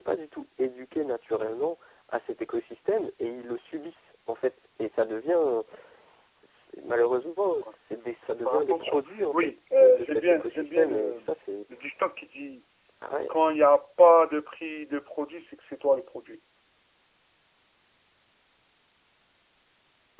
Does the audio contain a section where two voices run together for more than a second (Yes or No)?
Yes